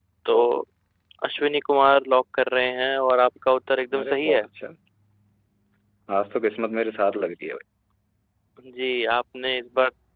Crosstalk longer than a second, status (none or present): none